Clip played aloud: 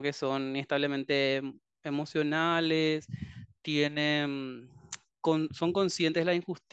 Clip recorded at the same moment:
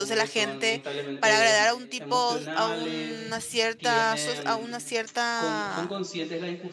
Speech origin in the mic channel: both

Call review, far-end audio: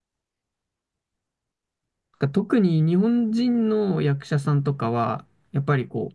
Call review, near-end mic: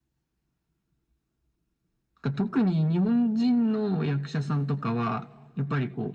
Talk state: echo only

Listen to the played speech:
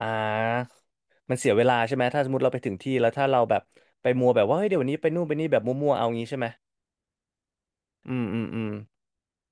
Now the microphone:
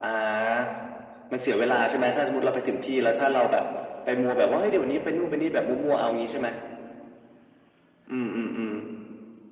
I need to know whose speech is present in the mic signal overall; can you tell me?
echo only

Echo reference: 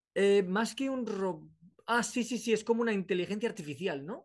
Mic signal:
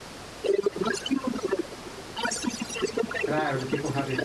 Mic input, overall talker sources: both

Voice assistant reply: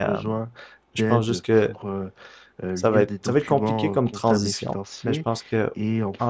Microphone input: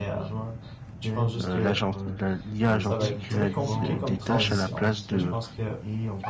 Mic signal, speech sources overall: both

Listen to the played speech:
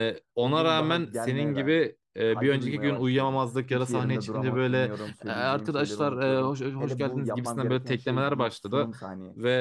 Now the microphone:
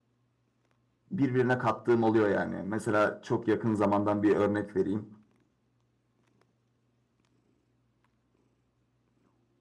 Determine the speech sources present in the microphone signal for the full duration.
user only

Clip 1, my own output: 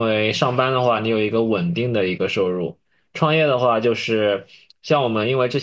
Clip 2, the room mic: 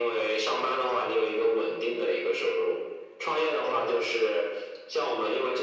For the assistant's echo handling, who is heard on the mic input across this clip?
echo only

